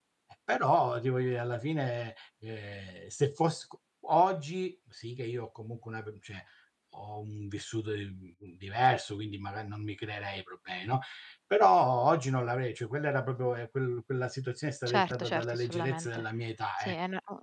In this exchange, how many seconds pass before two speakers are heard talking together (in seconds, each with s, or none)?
14.9 s